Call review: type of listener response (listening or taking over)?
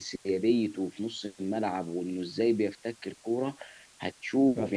listening